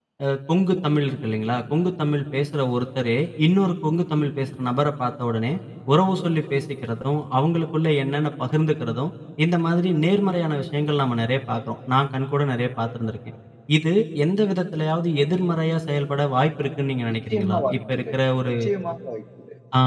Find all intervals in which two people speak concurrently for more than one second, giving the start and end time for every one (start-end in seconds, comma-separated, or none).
17.1-18.5